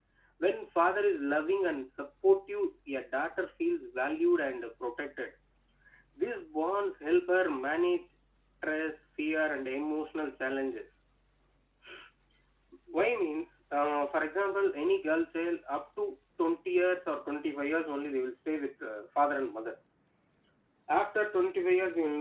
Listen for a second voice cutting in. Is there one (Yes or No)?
No